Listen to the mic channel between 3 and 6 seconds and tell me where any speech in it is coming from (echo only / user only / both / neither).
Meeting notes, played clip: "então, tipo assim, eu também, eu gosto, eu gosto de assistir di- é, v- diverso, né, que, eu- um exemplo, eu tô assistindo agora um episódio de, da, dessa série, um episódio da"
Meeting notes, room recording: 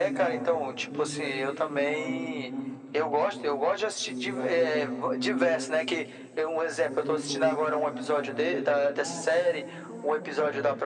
both